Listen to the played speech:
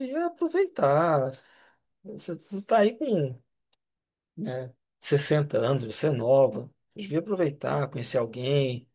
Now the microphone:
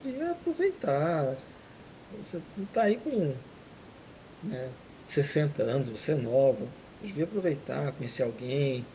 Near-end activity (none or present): none